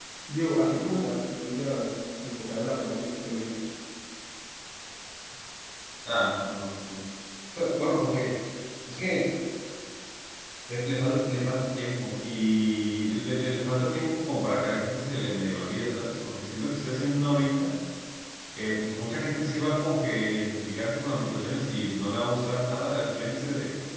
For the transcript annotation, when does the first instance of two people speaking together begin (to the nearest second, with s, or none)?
none